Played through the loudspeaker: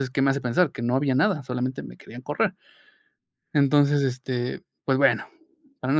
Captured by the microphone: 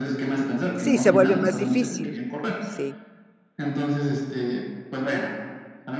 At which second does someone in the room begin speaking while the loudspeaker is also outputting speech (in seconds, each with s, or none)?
0.7 s